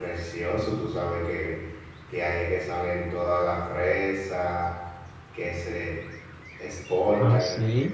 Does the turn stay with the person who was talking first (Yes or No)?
Yes